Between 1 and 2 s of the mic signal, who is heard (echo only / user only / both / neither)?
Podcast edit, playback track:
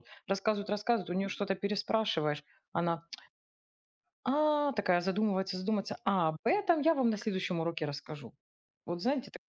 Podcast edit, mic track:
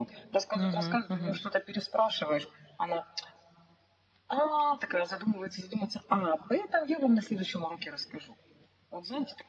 both